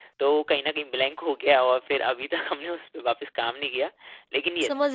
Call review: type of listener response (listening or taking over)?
taking over